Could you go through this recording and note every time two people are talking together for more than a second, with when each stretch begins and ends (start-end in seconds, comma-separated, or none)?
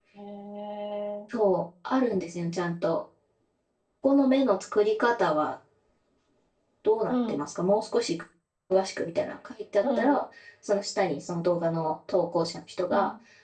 none